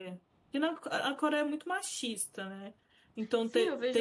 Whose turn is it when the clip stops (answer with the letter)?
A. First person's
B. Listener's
B